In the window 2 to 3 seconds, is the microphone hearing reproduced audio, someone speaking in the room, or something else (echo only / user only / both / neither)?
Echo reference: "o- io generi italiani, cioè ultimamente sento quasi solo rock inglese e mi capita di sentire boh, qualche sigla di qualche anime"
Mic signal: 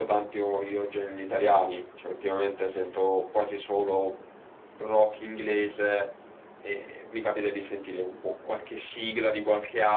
echo only